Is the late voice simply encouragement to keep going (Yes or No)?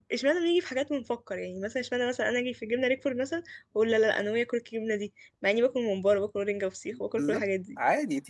No